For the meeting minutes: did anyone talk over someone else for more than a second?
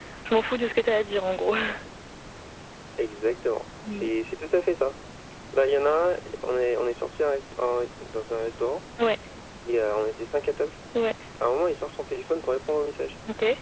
No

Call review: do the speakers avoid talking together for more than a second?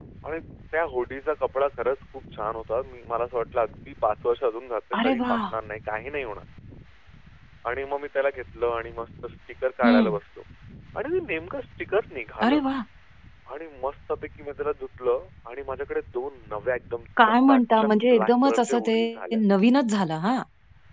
No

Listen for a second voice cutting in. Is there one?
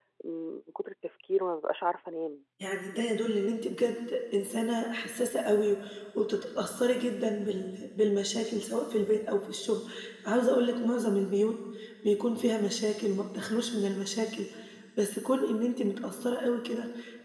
No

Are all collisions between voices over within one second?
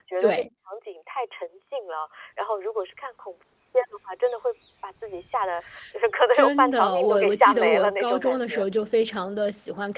No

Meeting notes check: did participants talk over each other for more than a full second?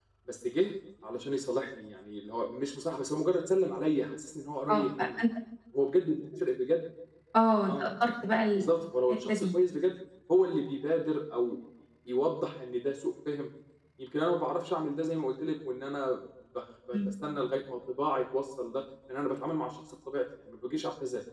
No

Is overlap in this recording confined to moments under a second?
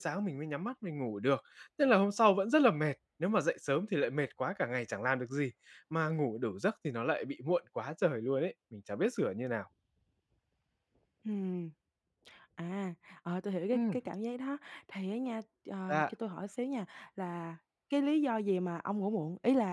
Yes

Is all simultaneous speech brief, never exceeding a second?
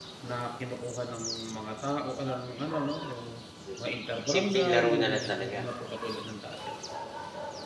No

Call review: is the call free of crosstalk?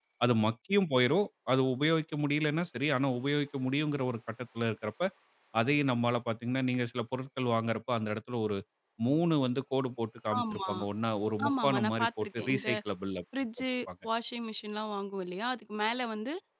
No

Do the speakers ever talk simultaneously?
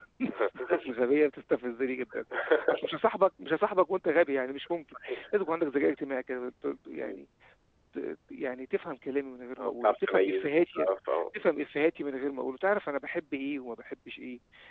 Yes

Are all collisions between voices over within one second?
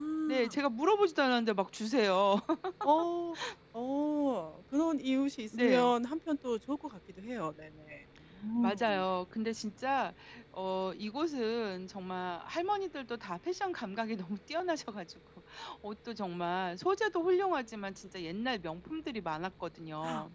Yes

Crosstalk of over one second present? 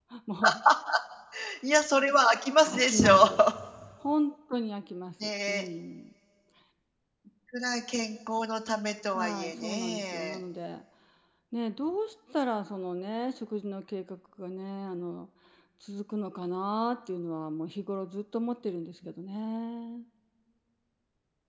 Yes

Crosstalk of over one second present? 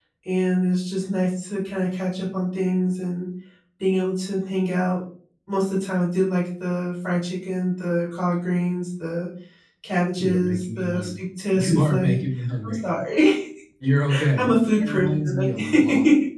Yes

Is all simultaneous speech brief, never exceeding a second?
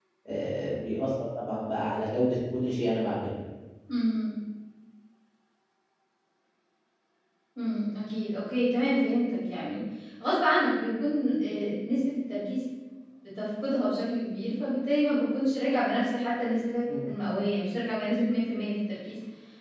Yes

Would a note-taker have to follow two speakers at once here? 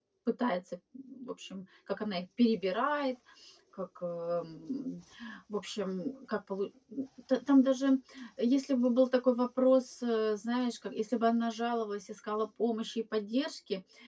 No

